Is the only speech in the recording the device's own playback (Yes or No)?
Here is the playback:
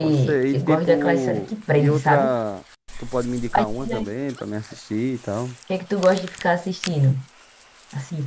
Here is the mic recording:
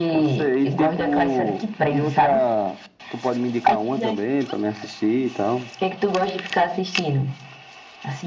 Yes